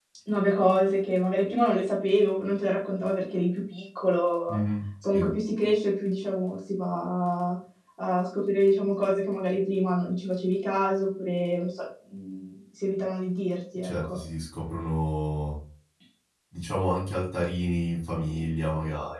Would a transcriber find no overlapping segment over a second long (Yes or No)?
Yes